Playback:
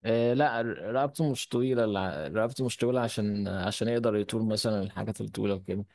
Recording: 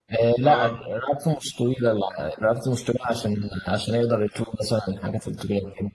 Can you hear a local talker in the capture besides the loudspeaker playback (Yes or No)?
Yes